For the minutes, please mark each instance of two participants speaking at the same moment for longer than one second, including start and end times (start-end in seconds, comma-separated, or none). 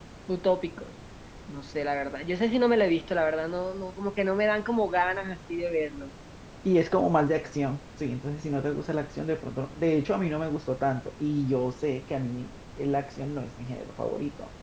none